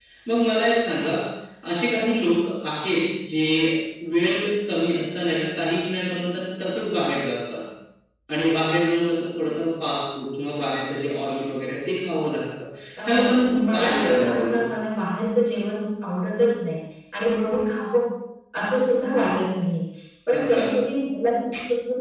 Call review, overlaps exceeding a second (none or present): present